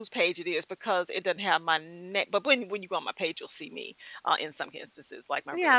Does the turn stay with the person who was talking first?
No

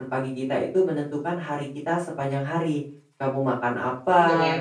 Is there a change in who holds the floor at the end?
No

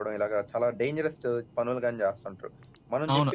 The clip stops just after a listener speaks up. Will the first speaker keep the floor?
No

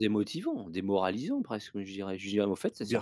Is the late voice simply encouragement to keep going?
No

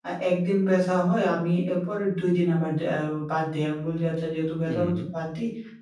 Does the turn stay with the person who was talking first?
Yes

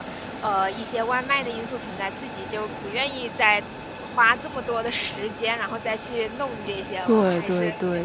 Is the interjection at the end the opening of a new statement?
Yes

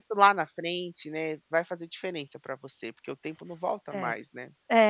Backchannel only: No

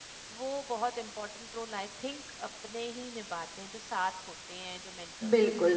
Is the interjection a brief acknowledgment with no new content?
No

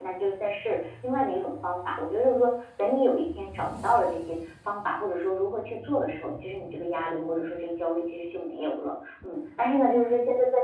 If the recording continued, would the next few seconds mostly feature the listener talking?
No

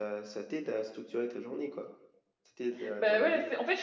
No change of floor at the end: No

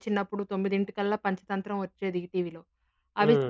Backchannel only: Yes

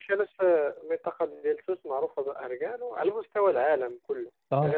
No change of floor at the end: No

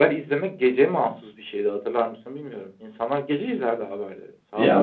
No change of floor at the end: No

